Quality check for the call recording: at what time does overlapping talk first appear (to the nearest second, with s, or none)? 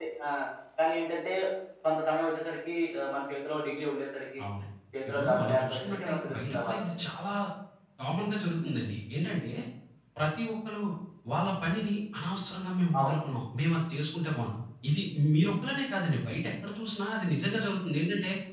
5 s